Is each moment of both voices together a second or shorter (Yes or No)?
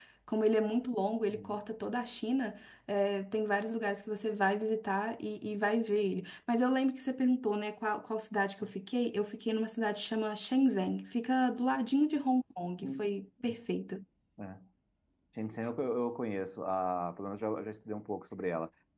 Yes